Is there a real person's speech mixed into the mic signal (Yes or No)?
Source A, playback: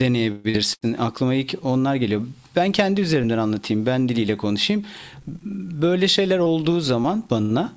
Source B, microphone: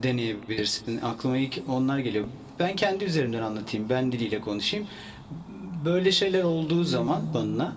Yes